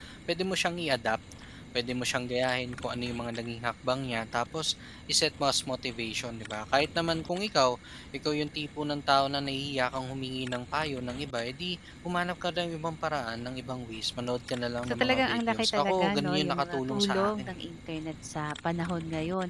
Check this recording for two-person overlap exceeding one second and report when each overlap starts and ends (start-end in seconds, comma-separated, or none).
14.9-17.6